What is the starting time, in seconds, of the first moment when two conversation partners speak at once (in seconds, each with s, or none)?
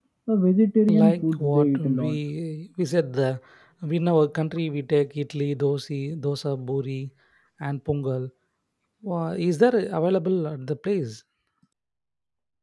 0.9 s